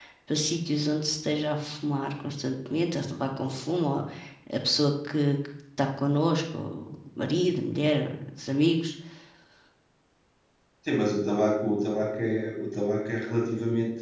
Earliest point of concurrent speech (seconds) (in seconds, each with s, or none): none